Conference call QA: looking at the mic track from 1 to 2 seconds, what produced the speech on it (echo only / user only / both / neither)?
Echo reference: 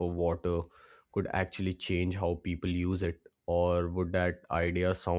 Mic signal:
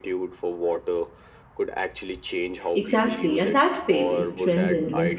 echo only